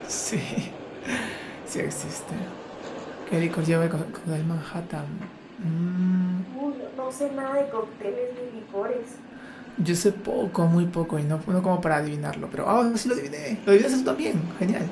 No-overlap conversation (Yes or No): Yes